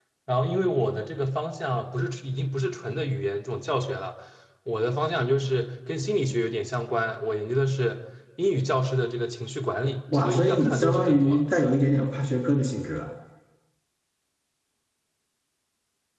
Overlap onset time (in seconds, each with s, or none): 10.1 s